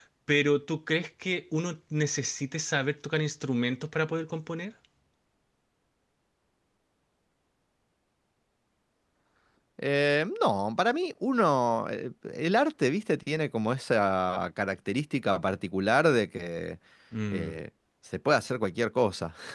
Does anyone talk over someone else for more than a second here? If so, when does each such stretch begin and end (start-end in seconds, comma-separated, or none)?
none